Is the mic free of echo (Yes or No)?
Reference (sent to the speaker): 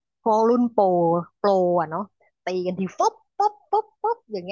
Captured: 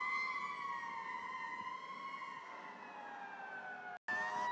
Yes